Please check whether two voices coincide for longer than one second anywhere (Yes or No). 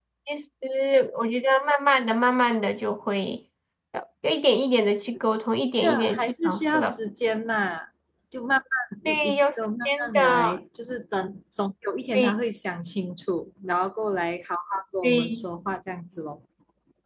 Yes